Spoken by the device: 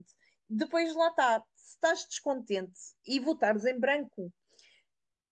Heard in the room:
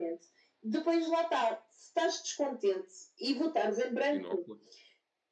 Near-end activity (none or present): present